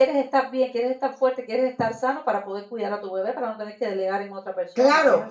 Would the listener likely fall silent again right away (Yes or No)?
No